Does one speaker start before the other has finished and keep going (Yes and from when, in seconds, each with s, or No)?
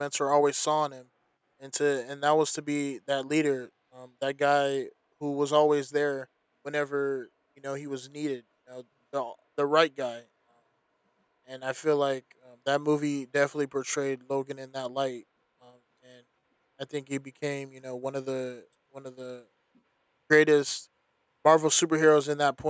No